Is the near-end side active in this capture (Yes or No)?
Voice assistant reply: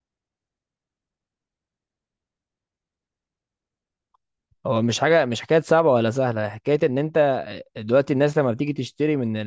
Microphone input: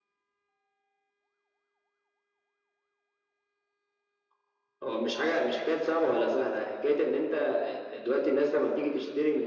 No